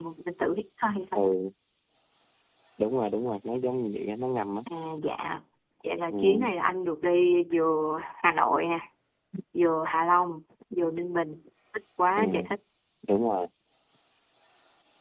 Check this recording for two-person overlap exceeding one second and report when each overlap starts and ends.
none

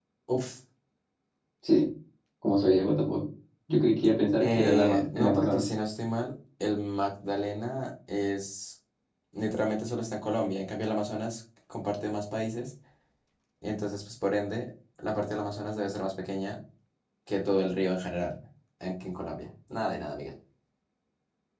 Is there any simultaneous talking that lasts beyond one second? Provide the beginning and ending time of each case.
4.4-5.7

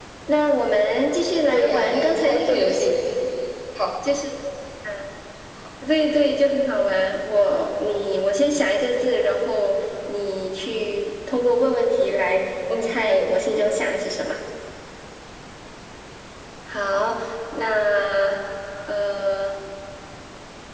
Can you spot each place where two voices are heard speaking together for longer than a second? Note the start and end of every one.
1.5-2.9

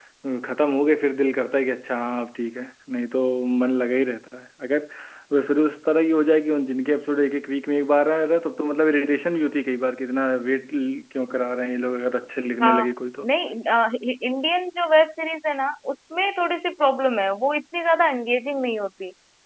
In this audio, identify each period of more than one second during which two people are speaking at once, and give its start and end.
none

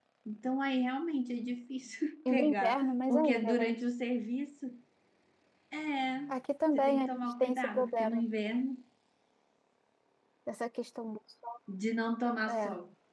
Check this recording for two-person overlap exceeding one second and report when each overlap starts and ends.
2.3-3.7, 6.7-8.2

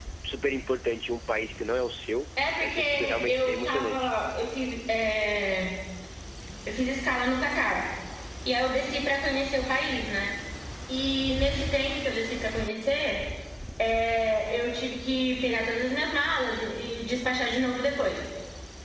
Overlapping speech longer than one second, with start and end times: 2.6-4.1

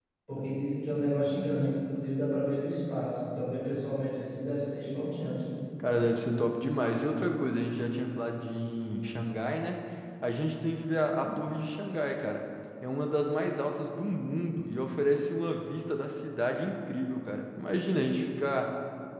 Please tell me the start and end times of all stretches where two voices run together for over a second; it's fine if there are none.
none

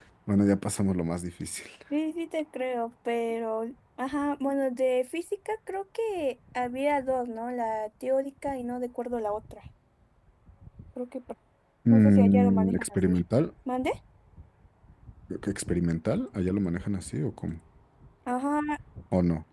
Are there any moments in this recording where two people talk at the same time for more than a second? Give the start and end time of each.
11.9-13.2

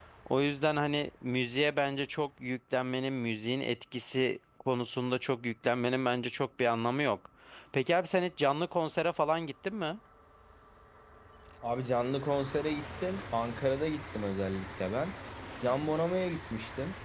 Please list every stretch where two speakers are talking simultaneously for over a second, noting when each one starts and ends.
none

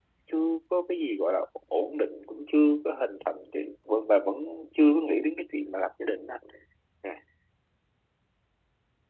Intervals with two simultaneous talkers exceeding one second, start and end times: none

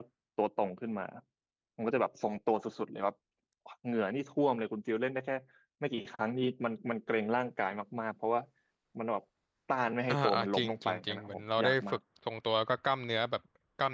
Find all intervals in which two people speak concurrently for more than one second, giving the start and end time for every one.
10.1-12.0

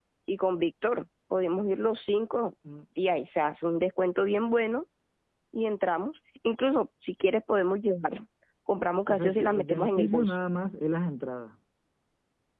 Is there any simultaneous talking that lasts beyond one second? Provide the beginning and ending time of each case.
9.1-10.4

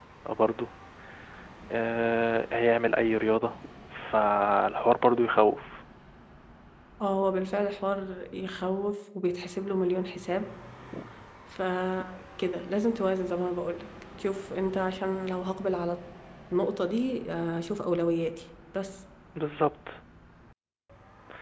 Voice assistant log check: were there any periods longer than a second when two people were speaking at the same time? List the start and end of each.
none

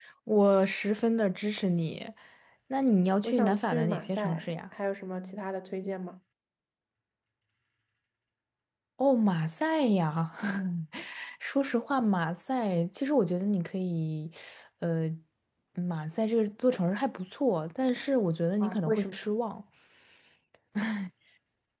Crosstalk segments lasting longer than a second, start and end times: 3.2-4.5

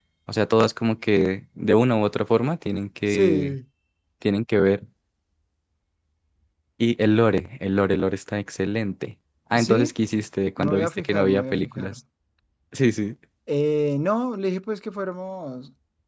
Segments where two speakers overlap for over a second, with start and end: 10.6-11.9

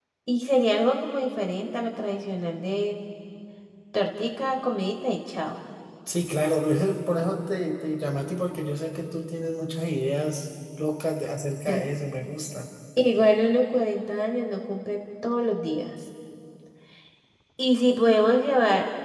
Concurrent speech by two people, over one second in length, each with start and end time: none

